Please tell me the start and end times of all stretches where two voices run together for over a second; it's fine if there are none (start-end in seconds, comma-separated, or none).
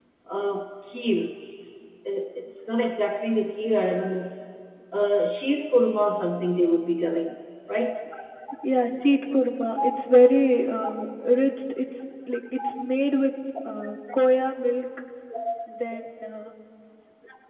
none